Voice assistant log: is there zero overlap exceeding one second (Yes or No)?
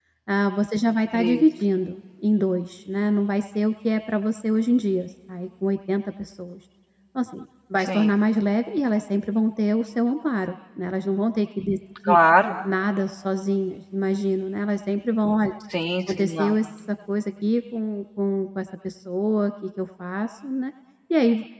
Yes